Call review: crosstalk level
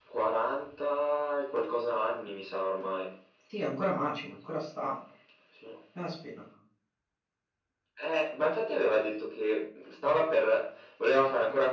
none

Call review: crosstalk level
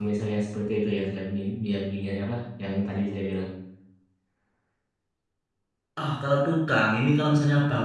none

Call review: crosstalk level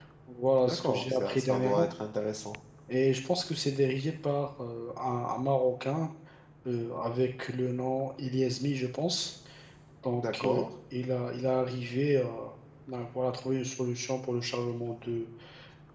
present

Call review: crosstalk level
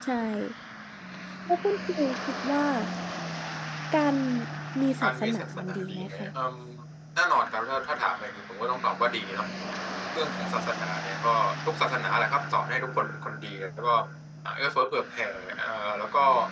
present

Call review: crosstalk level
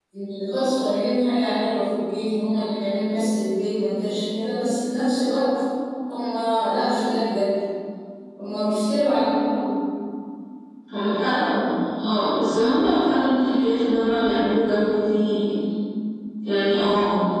none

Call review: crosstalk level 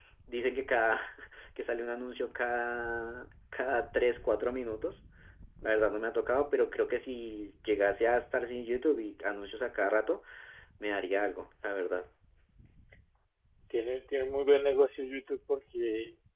none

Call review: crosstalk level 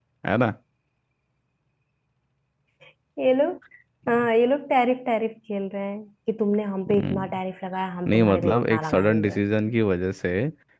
present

